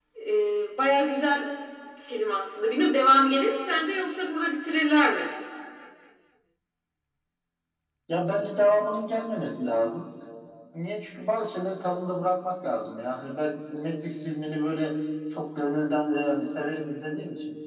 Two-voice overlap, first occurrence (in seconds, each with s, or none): none